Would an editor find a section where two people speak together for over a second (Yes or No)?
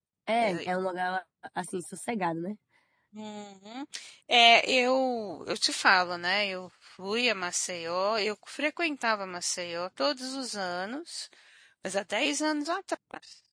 No